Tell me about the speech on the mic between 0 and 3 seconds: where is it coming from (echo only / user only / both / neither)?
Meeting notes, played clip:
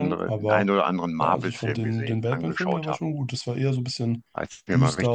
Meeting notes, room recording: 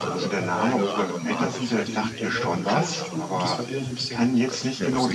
both